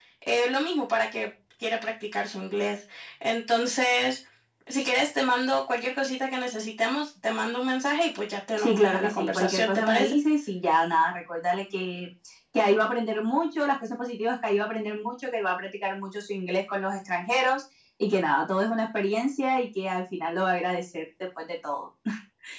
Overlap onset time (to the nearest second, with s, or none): 9 s